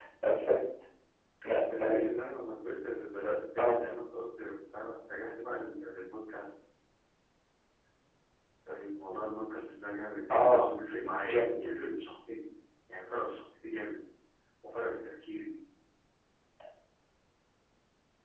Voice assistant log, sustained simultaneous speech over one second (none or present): none